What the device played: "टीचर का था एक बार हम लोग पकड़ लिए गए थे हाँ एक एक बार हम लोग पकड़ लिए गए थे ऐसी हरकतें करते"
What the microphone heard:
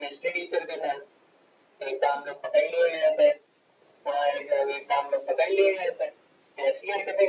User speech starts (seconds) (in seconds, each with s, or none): none